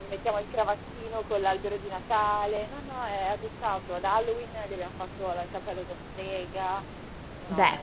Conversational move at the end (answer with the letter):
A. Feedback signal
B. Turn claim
B